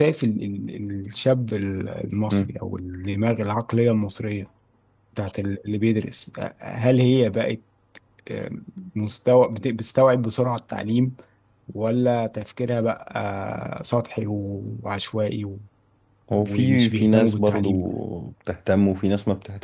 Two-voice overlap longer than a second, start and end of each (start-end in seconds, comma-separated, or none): 16.4-17.7